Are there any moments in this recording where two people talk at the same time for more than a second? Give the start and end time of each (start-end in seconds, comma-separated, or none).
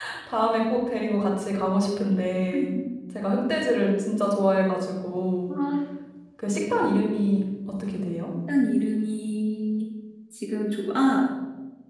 none